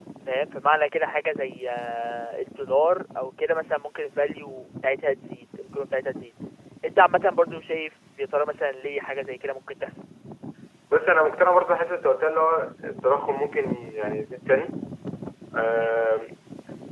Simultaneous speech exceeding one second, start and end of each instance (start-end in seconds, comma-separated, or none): none